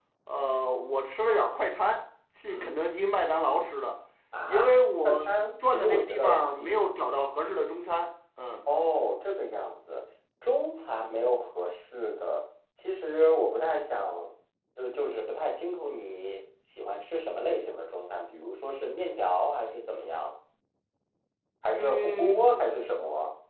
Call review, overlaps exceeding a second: present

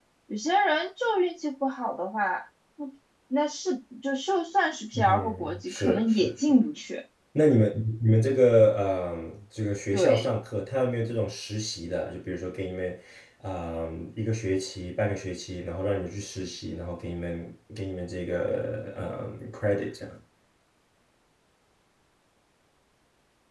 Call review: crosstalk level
present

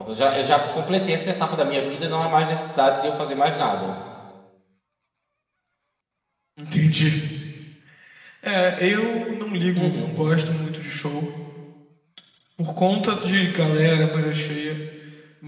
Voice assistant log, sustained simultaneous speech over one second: none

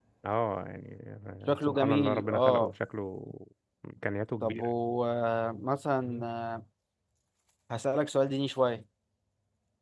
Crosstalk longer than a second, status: present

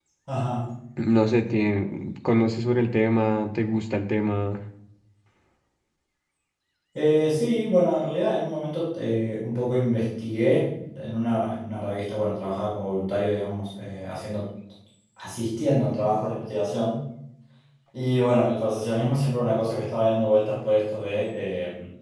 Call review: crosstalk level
none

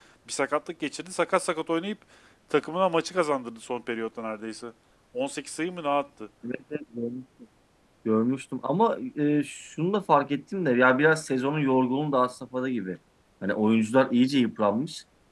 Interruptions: none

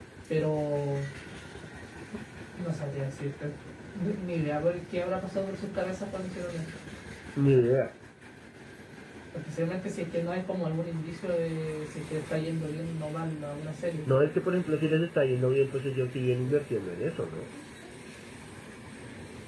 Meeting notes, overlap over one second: none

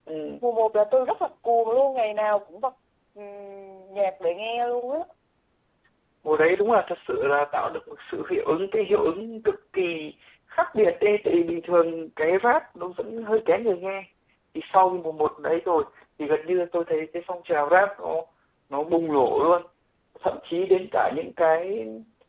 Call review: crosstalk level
none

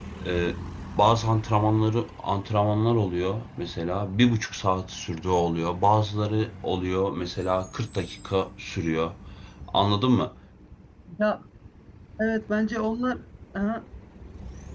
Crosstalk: none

